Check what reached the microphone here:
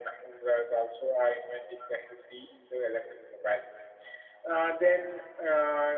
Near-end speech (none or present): none